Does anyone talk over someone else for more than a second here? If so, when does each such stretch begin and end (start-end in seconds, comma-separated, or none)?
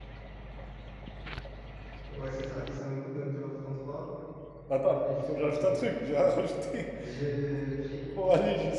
4.8-6.0